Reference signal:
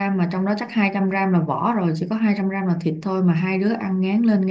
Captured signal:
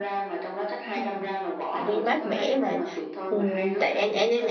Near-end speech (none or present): present